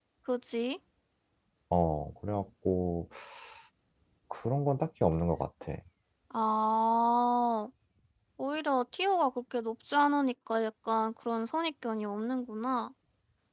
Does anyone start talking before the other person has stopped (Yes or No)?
No